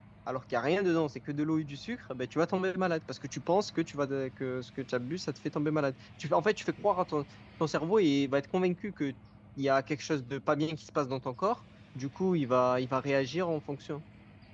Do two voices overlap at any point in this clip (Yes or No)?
No